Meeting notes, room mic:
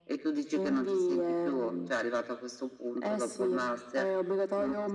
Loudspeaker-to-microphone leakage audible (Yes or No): Yes